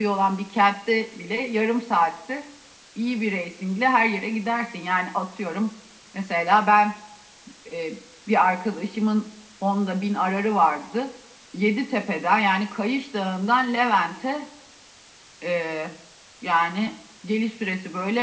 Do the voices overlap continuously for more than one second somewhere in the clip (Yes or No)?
No